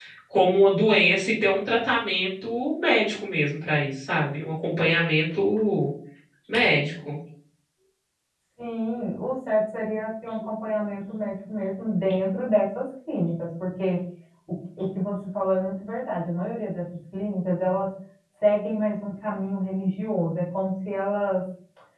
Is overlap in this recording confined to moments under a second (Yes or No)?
Yes